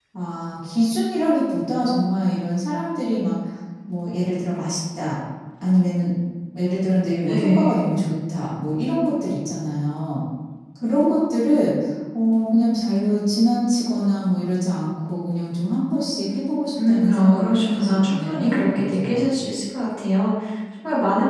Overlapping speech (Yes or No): Yes